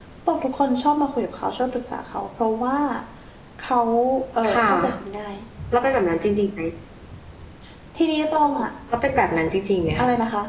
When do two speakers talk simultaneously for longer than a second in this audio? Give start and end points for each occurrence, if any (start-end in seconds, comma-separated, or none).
none